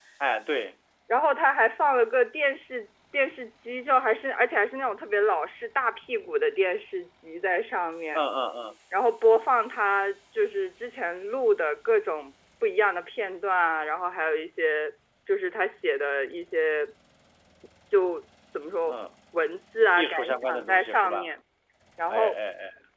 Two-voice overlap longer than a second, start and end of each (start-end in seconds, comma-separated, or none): 19.9-21.3